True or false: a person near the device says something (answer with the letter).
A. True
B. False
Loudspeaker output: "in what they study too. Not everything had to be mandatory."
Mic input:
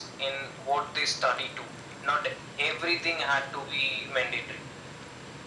B